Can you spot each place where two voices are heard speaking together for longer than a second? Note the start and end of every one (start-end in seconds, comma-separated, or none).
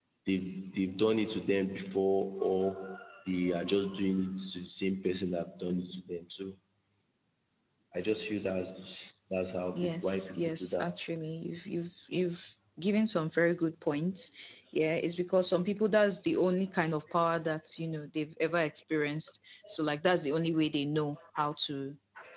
9.7-10.9